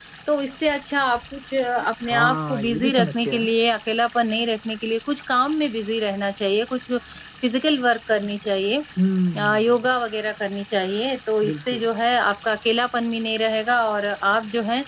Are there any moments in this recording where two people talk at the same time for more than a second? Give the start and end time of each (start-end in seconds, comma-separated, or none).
2.1-3.5